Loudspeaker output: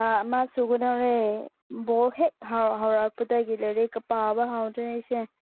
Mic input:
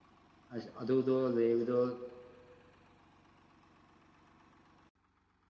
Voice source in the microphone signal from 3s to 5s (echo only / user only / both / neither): neither